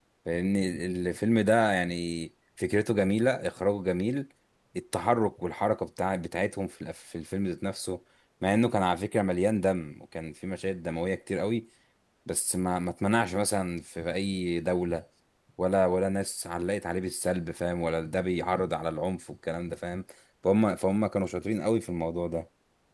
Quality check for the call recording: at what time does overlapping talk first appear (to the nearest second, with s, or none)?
none